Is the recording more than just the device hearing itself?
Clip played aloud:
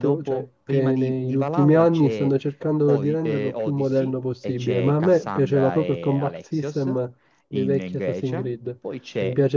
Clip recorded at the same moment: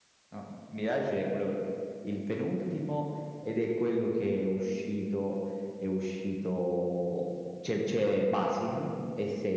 Yes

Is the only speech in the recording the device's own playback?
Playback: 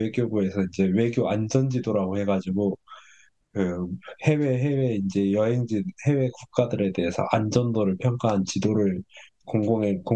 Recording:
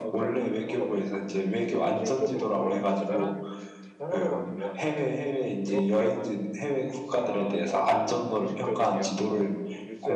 No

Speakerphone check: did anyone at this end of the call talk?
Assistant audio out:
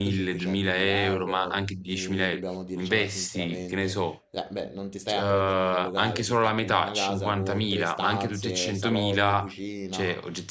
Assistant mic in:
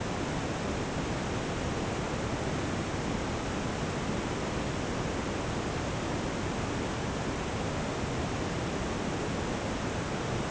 No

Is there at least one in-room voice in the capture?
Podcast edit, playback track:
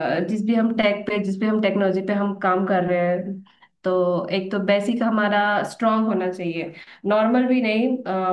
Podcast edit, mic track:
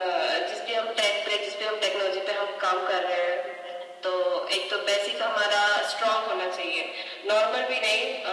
No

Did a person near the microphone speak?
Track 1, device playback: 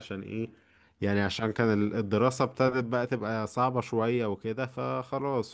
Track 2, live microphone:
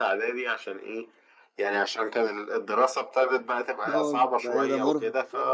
Yes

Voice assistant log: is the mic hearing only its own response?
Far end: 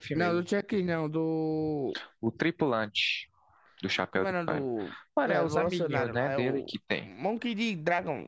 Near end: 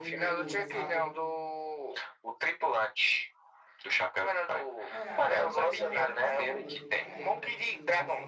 No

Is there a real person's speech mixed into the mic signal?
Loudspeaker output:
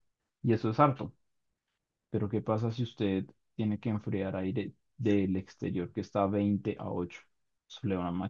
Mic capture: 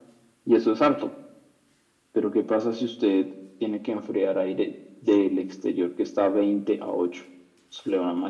No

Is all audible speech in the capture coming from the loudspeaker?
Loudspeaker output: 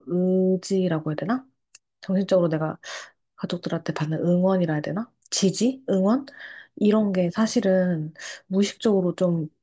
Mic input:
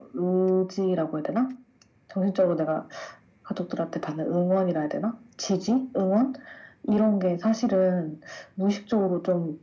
Yes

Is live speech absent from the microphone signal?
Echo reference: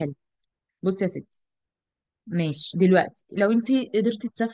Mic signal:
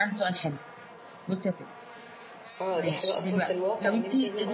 No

